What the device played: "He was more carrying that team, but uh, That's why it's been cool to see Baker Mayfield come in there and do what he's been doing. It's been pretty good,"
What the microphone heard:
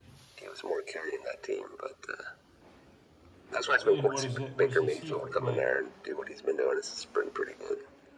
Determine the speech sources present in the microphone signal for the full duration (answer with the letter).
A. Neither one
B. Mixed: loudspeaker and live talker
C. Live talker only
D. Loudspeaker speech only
B